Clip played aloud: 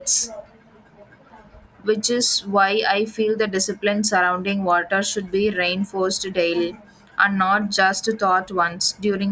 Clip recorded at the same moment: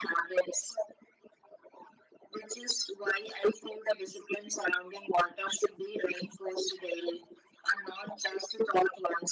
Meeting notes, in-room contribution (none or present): none